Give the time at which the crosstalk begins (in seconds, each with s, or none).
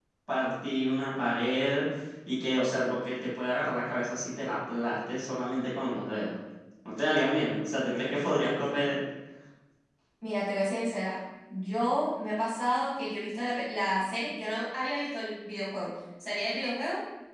none